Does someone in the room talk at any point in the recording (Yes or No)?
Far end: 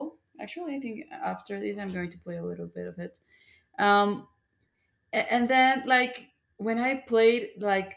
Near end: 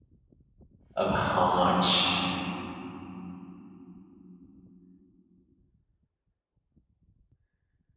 Yes